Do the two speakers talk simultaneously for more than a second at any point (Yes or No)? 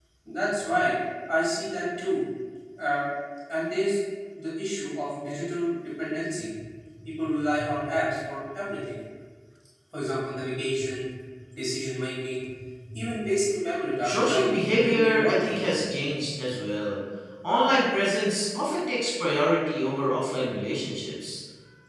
Yes